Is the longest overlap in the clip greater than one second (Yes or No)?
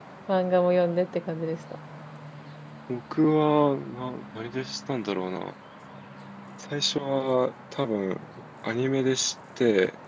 No